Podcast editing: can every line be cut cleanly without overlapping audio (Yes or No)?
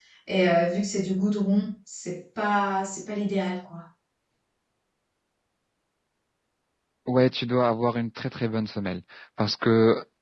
Yes